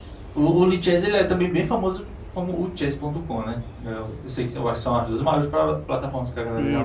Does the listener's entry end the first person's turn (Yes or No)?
Yes